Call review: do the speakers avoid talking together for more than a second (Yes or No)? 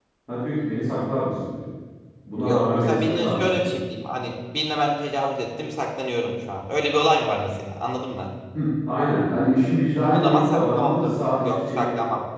No